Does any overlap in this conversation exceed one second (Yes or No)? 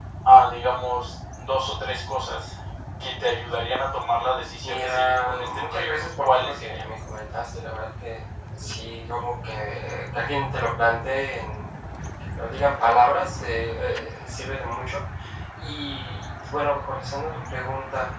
Yes